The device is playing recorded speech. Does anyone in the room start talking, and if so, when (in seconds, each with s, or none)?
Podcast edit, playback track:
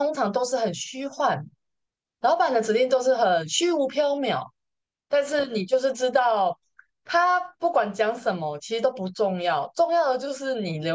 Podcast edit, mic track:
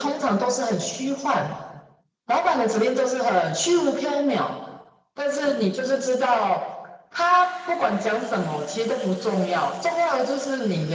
none